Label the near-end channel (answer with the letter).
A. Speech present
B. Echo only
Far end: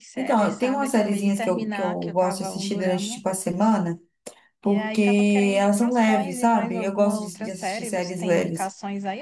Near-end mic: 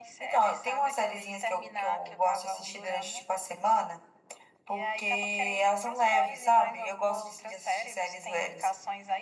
B